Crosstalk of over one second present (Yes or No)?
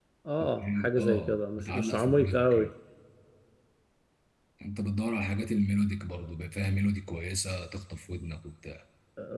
Yes